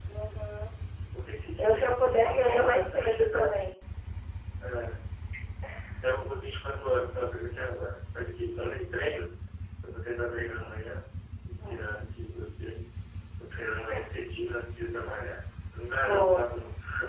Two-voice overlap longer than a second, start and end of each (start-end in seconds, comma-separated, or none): 1.6-3.5